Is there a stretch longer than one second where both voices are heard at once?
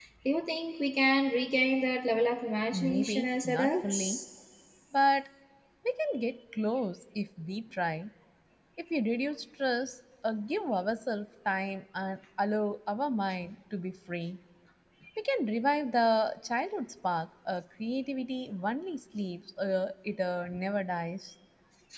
Yes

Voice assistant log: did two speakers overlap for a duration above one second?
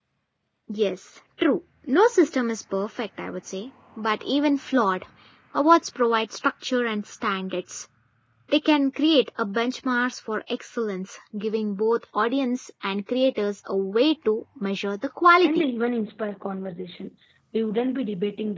No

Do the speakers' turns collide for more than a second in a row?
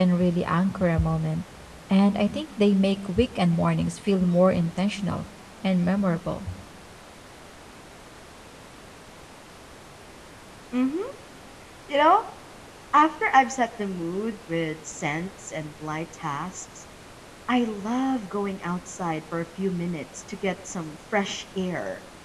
No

